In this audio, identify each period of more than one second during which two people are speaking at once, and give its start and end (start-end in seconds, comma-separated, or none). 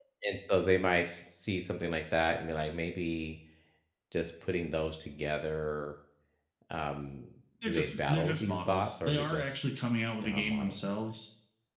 7.7-9.6